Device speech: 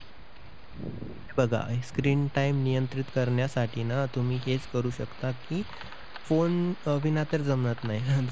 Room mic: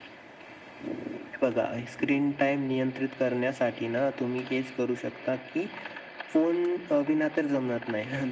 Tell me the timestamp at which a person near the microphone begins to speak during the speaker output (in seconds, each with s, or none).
none